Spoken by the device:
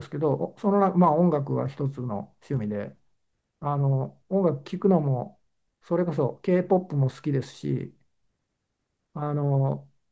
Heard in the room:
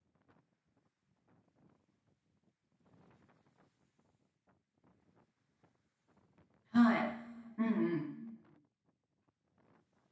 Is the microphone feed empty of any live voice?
No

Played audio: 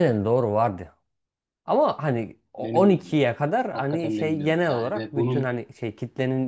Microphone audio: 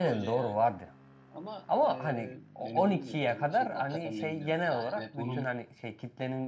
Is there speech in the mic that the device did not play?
Yes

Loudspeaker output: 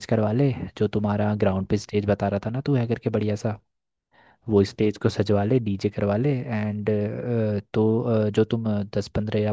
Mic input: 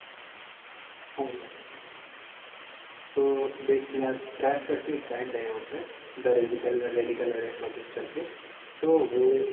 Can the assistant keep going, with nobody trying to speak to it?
No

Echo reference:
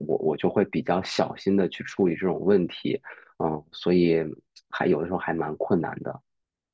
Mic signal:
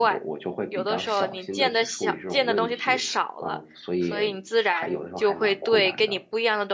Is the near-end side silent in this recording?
No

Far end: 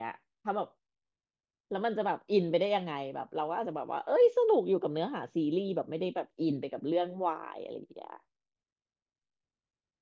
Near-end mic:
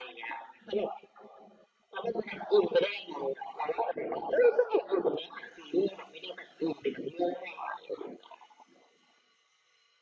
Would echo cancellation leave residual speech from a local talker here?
No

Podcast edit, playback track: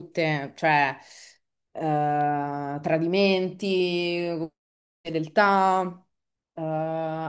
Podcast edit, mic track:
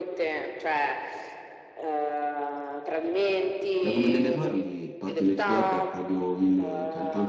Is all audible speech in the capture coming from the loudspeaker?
No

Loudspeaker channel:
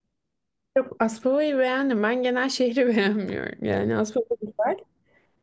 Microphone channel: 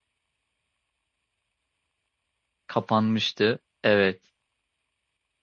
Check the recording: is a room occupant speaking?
Yes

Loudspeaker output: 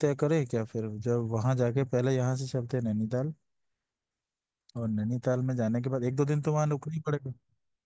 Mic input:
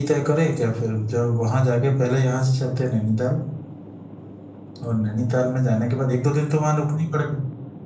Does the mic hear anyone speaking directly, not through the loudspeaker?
No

